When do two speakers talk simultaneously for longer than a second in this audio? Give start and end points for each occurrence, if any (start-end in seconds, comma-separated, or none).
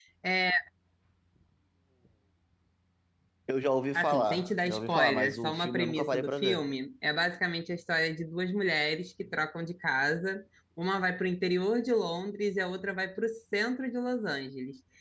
3.9-6.7